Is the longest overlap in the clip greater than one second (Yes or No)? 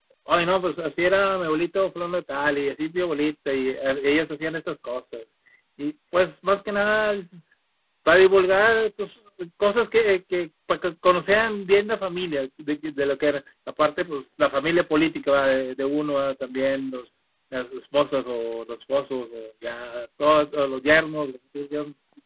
No